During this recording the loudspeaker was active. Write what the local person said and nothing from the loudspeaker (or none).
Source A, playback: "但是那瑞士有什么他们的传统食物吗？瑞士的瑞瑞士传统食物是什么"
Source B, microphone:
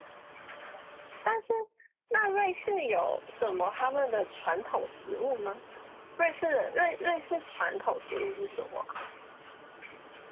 none